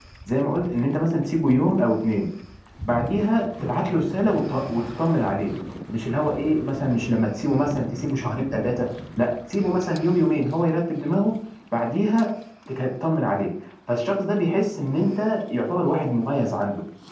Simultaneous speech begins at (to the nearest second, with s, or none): none